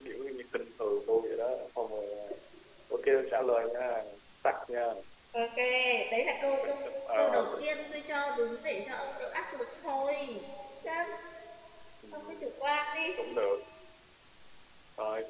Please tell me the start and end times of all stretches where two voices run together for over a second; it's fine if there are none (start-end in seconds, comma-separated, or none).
none